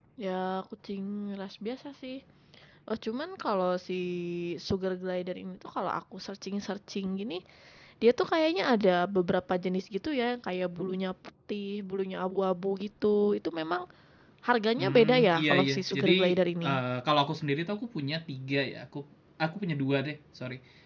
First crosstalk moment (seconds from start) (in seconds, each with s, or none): 14.8 s